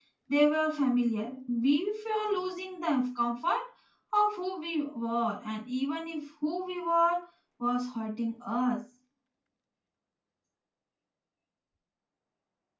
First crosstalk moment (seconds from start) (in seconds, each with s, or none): none